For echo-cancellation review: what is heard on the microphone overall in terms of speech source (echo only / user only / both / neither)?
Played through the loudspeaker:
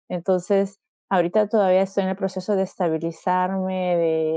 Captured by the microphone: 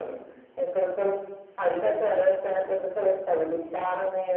echo only